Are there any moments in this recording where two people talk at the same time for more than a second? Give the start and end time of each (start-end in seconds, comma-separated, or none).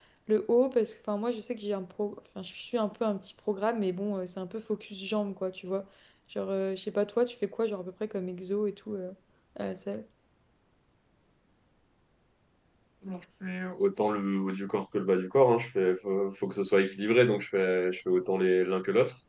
none